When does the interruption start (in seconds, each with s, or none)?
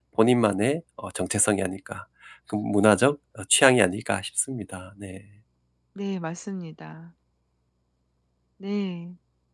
none